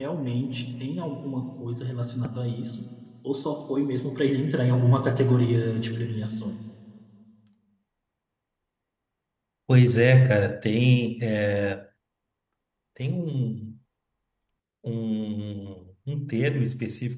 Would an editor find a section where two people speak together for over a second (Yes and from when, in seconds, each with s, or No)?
No